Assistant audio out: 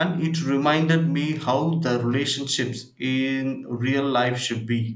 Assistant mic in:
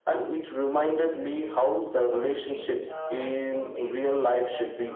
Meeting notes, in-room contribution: present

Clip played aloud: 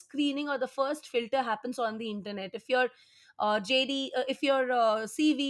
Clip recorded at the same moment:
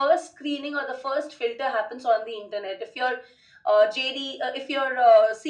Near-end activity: none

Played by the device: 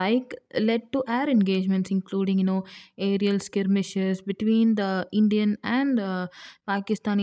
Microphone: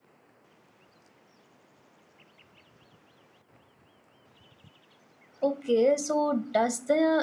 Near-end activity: present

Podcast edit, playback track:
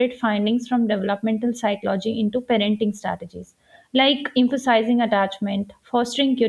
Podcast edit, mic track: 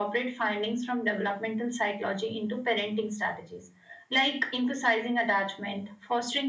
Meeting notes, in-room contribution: none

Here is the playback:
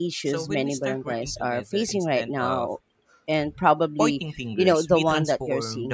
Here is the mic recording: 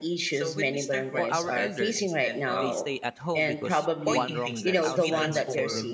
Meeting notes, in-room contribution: present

